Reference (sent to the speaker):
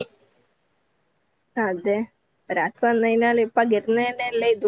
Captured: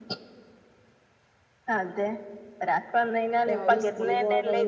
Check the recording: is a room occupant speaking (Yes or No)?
Yes